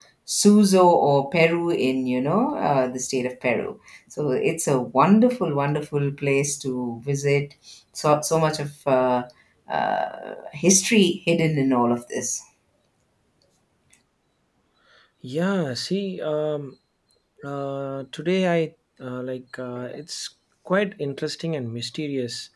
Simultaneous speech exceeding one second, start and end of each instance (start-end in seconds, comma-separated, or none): none